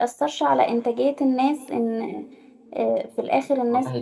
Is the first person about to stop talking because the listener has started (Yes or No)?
Yes